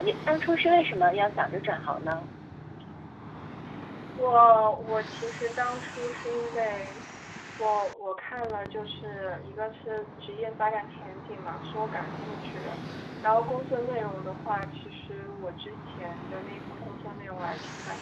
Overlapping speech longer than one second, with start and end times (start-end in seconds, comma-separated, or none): none